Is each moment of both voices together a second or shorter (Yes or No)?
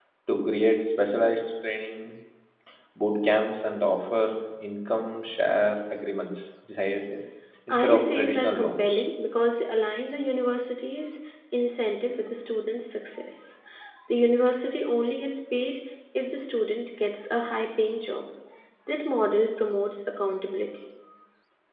No